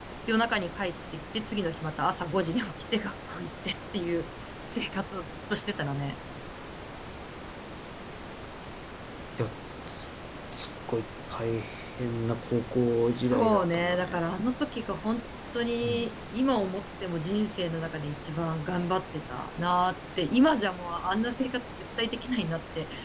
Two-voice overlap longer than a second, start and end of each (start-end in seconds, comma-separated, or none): 13.0-14.2